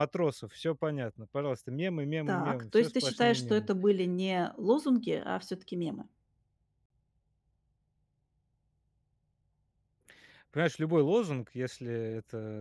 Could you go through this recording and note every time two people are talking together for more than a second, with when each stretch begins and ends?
2.3-3.7

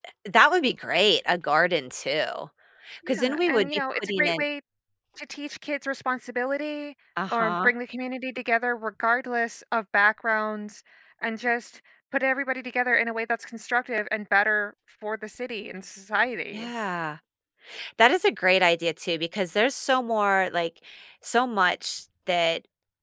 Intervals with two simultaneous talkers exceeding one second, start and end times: 3.1-4.4

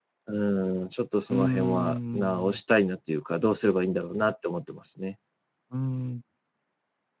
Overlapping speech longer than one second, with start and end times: 1.3-2.6

